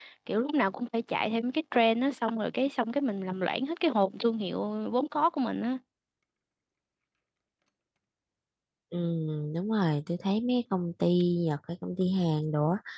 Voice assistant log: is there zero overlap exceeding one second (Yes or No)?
Yes